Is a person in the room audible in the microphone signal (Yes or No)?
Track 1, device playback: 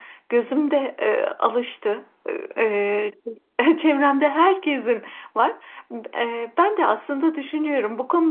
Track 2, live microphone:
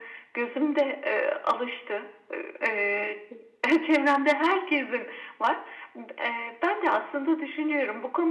No